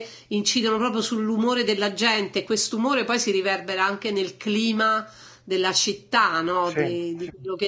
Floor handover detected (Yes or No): No